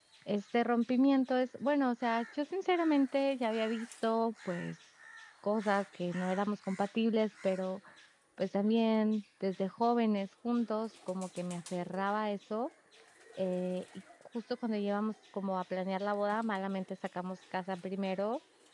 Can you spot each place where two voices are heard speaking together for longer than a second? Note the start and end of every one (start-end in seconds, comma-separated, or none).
none